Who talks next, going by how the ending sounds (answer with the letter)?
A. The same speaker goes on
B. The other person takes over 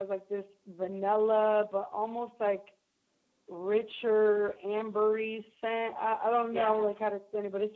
A